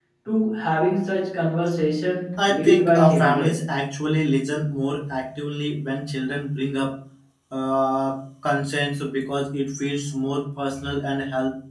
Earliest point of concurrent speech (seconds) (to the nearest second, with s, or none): 2 s